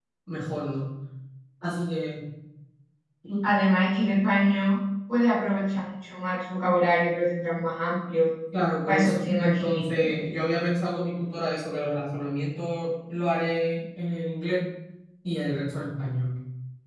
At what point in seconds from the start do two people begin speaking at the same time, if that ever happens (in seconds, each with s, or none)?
8.9 s